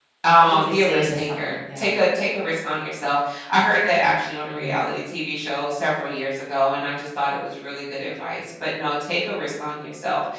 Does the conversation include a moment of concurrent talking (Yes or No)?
Yes